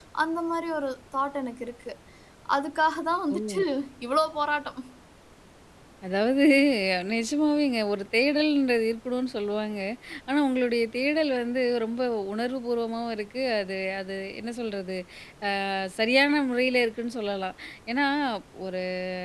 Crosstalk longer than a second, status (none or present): none